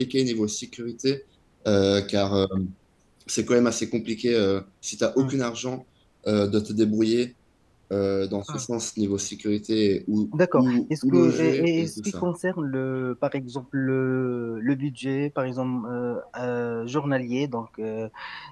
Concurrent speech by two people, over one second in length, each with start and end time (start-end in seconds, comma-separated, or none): 10.3-12.3